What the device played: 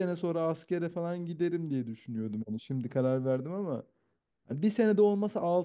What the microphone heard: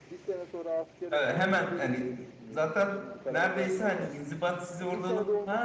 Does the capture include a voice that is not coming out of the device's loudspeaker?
Yes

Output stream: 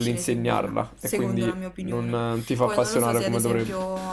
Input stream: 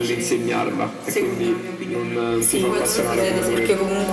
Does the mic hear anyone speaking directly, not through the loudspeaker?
Yes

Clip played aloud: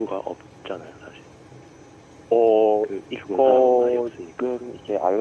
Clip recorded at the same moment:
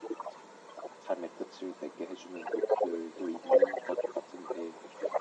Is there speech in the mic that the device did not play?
Yes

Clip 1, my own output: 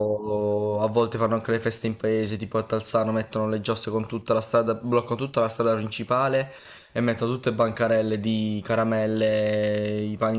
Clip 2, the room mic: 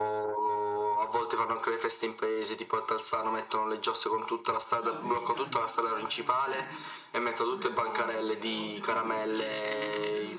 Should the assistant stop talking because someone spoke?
Yes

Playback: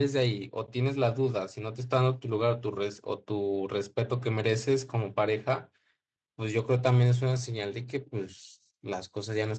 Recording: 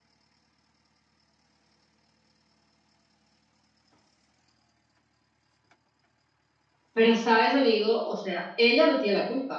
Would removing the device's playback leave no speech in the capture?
No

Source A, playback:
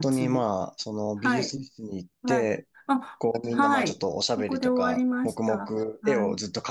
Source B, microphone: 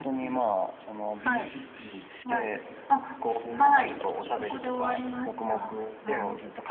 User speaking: No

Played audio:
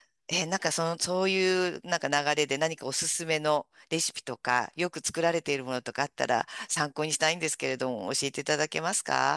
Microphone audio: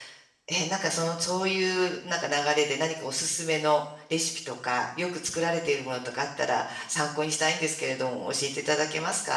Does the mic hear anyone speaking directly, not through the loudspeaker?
No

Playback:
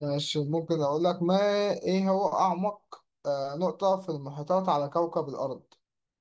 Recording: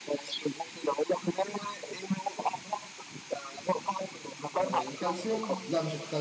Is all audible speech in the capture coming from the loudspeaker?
No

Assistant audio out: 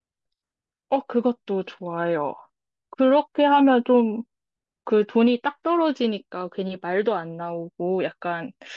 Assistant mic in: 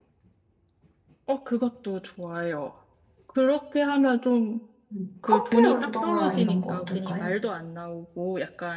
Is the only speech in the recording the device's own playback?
No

